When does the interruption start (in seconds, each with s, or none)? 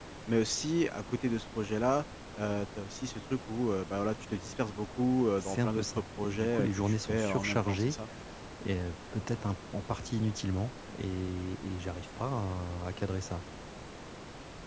5.4 s